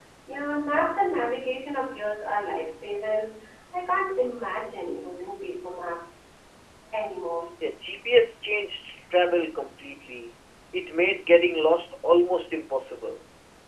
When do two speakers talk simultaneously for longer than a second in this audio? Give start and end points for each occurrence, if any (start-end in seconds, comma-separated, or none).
none